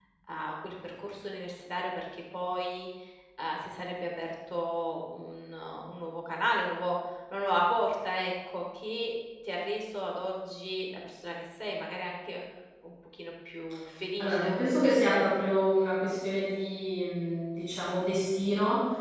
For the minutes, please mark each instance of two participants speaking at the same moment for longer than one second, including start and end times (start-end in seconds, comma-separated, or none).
none